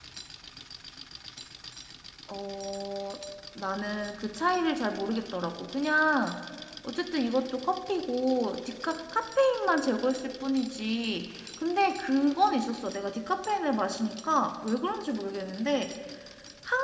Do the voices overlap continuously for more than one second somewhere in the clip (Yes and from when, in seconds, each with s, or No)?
No